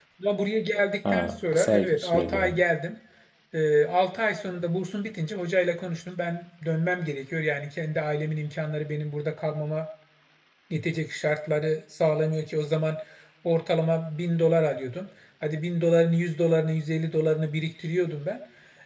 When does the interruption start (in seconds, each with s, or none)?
1.0 s